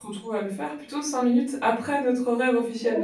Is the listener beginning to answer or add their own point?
Yes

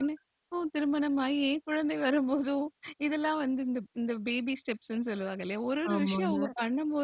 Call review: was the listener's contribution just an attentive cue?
Yes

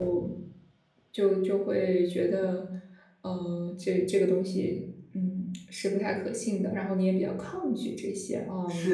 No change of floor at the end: No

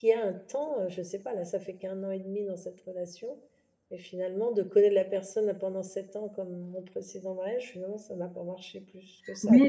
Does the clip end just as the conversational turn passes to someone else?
Yes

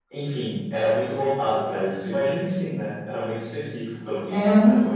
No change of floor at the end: No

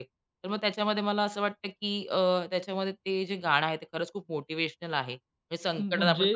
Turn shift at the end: No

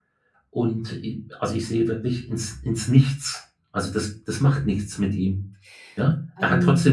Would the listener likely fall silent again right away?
Yes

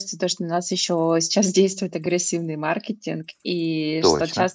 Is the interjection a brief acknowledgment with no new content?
Yes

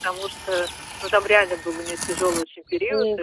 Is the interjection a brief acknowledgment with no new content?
Yes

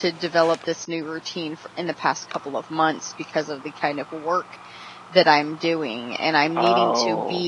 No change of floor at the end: Yes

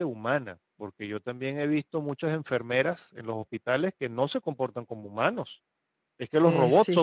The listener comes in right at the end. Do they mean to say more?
No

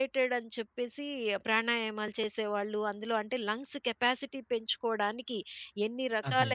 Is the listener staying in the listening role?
Yes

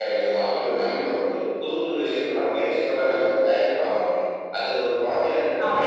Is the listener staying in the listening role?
No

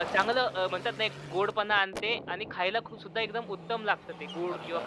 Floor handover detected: Yes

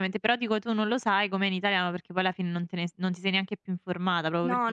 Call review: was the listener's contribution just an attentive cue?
No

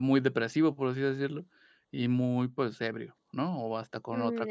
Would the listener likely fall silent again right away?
No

